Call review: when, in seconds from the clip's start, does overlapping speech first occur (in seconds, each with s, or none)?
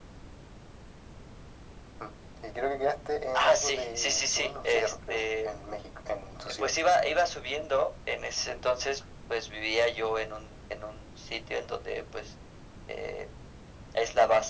3.4 s